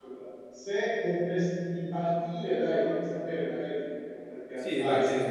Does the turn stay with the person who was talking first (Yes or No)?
No